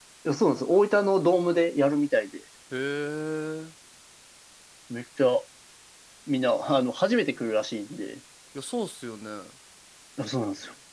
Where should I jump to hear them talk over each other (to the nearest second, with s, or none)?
none